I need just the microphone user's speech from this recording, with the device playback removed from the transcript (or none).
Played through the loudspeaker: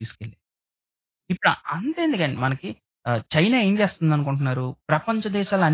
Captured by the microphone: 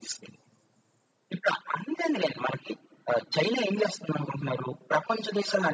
none